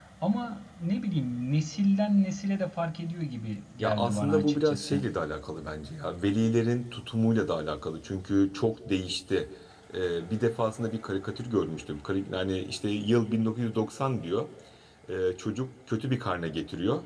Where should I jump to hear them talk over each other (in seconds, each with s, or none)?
3.8 s